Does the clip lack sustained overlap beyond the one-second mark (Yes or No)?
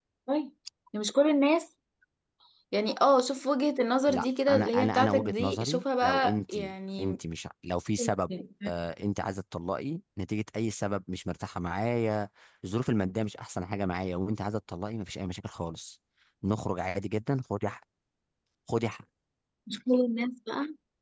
No